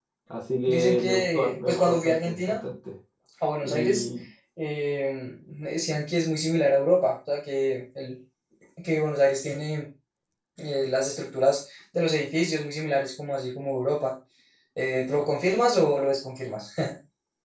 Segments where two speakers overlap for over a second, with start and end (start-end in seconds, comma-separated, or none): 0.7-2.6